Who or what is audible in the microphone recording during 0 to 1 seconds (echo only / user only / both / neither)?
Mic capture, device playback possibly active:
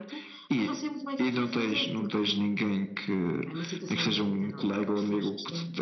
echo only